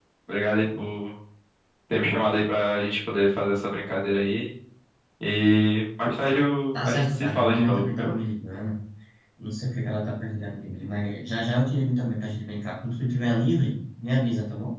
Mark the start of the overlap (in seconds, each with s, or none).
6.7 s